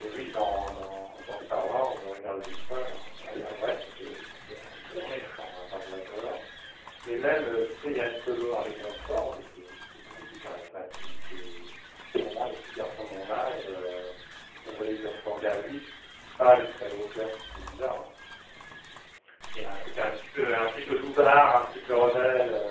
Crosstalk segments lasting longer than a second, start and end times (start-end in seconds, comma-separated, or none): none